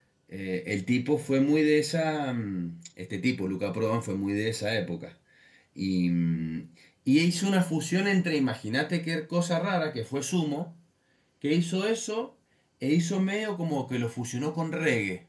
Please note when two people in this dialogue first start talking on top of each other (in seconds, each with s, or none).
none